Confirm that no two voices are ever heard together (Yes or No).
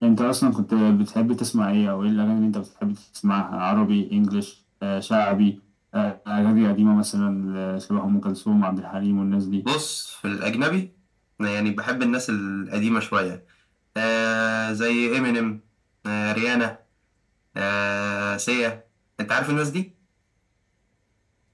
Yes